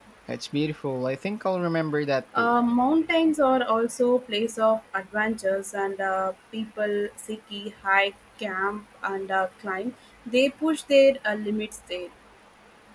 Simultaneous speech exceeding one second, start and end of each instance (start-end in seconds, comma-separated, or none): none